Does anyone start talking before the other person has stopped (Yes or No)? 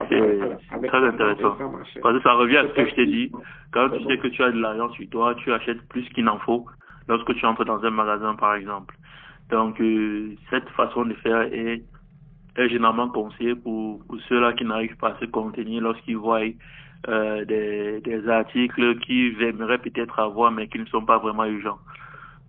Yes